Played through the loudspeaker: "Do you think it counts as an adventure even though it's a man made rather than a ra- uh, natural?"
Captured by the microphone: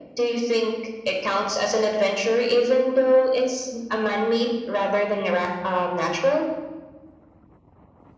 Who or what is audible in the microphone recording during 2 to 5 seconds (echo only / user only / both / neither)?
echo only